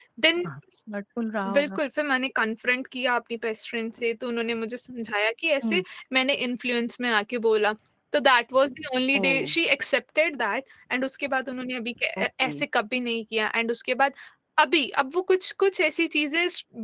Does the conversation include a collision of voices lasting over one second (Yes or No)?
No